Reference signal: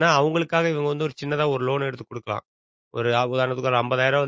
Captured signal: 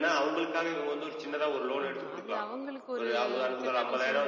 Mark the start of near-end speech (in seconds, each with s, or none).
1.9 s